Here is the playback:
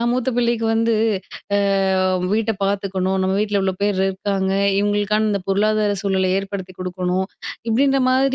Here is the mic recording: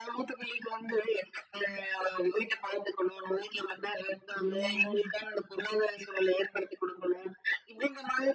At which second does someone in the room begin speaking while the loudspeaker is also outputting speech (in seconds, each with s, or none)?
4.3 s